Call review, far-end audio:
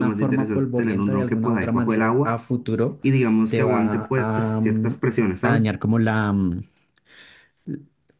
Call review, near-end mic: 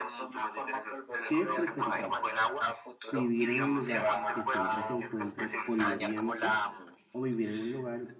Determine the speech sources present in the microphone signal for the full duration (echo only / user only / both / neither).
both